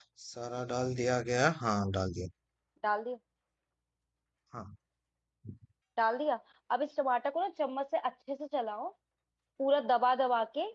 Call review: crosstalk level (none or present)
none